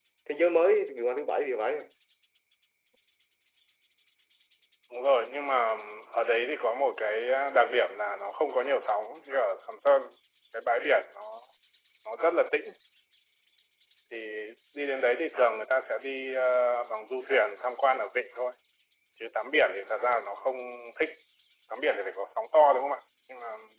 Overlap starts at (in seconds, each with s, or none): none